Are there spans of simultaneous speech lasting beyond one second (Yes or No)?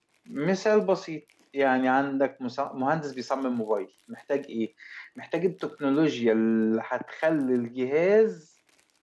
No